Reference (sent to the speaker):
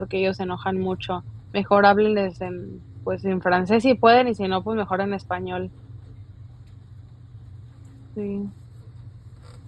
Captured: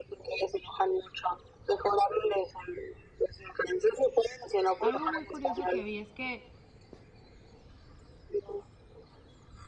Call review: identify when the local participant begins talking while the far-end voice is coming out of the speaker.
4.8 s

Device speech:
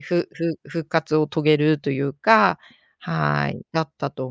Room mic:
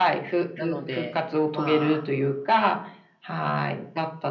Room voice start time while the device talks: 0.6 s

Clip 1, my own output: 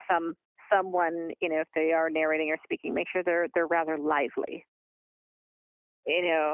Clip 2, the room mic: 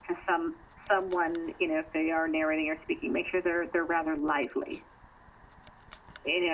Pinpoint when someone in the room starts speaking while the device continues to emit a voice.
none

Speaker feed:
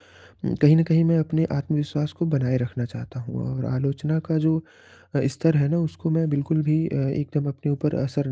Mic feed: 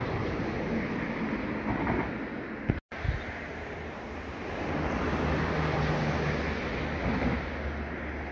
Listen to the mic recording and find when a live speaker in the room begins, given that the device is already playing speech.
none

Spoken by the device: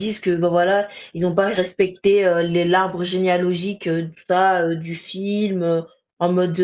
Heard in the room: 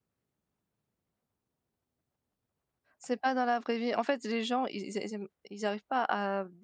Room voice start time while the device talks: 3.0 s

